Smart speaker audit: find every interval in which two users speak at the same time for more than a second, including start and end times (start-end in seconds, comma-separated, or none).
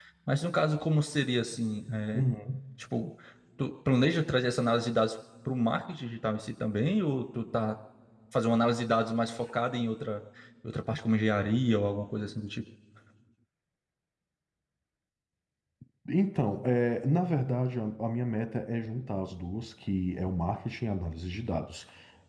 none